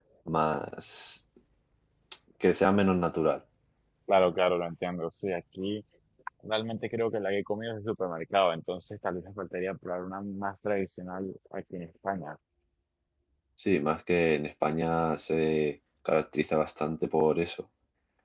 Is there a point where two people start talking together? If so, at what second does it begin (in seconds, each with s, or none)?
none